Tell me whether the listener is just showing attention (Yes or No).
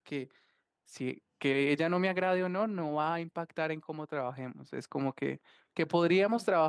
Yes